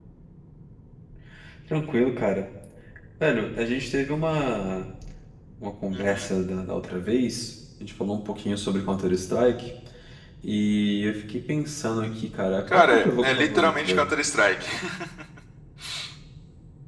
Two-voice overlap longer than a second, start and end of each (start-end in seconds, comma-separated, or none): 12.7-14.1